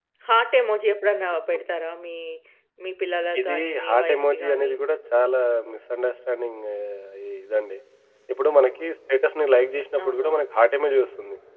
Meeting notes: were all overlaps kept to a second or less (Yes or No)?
No